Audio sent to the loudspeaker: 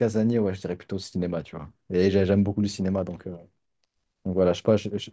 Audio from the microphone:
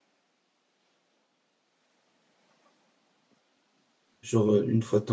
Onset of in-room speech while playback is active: 4.2 s

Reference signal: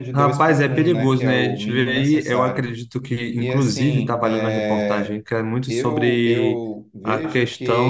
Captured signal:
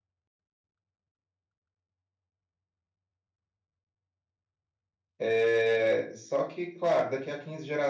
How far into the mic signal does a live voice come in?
5.2 s

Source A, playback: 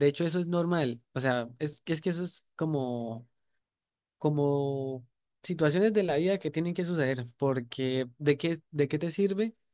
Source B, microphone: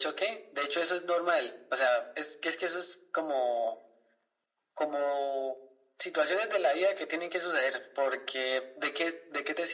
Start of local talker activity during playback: none

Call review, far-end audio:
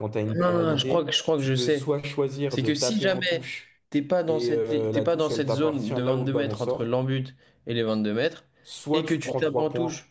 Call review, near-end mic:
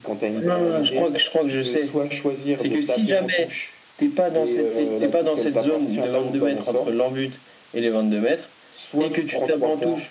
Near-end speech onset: none

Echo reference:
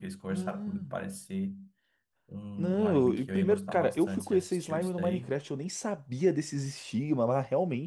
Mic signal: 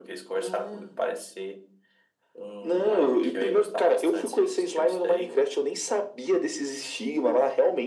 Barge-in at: none

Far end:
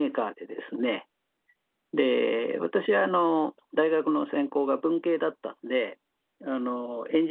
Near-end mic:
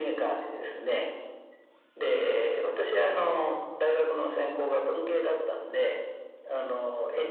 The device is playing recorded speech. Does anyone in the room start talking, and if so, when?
none

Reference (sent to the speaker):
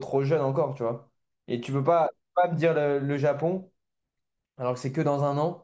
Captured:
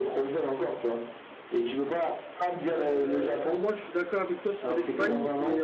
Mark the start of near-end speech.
2.7 s

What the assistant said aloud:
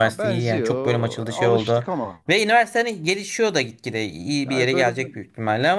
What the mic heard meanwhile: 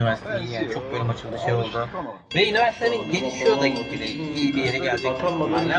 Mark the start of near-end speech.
2.5 s

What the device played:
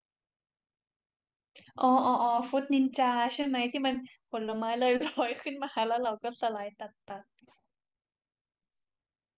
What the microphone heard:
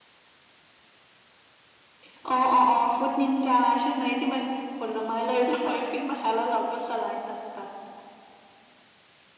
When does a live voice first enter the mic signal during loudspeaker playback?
none

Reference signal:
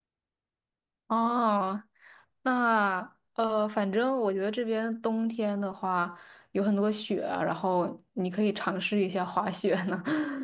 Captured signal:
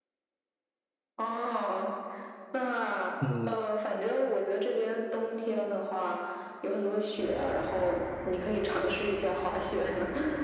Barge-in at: 3.2 s

